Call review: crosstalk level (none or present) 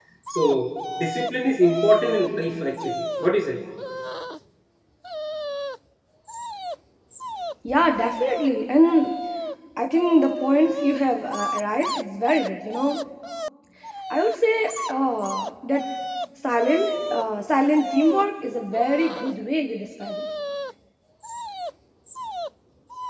none